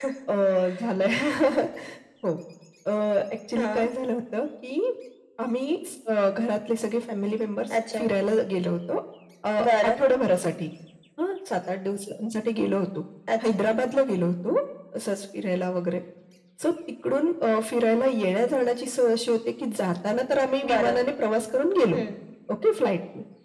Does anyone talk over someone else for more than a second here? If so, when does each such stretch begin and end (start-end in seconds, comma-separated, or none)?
none